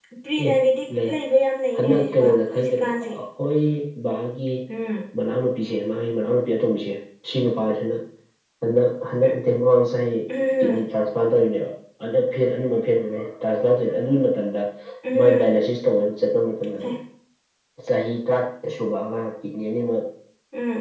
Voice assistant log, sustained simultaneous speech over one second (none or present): present